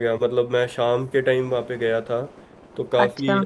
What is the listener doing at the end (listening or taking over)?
listening